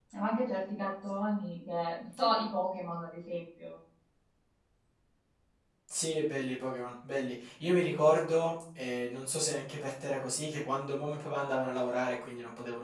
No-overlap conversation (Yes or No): Yes